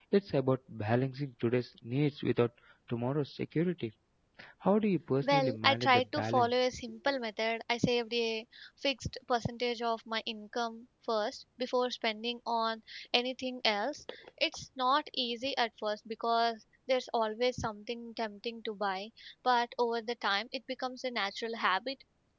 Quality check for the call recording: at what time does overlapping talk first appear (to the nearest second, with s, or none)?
5 s